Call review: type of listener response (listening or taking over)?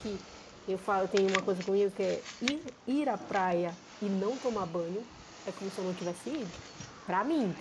listening